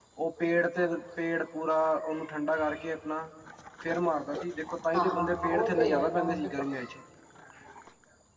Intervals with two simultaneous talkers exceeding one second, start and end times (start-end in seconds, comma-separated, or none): 4.9-6.8